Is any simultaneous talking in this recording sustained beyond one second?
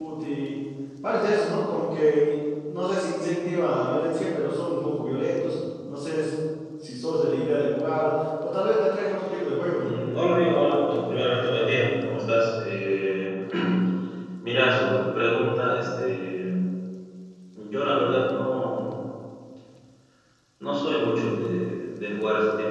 No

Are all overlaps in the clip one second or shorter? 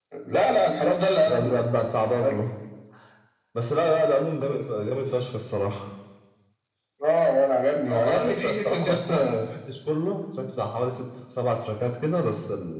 No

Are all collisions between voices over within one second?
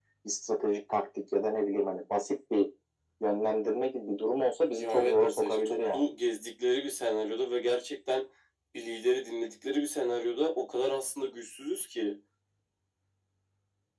No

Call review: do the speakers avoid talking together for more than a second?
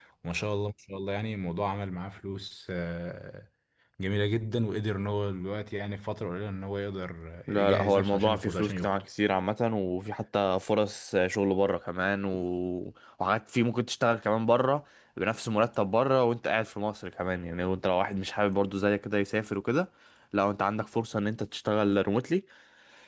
No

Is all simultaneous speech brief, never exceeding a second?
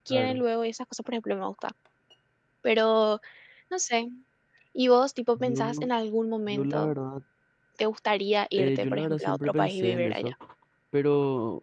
No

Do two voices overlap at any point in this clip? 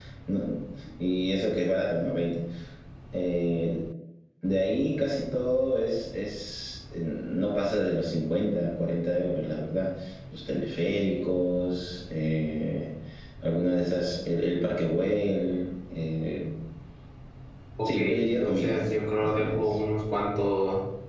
Yes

